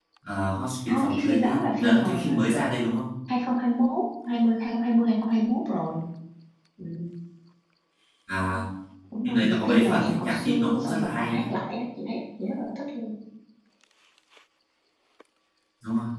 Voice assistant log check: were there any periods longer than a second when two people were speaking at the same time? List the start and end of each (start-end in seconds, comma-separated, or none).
0.9-2.3, 9.2-11.5